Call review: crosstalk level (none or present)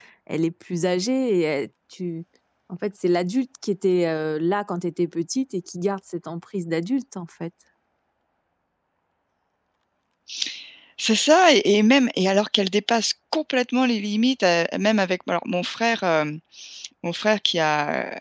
none